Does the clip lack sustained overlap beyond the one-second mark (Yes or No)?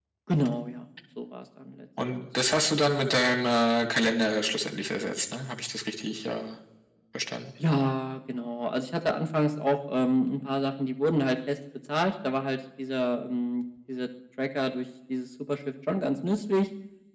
Yes